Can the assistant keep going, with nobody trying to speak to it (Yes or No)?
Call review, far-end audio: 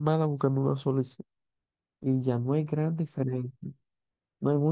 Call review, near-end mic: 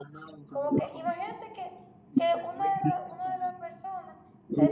No